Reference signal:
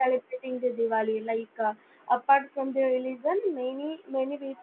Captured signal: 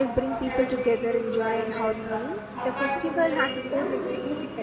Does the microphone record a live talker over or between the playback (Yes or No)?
Yes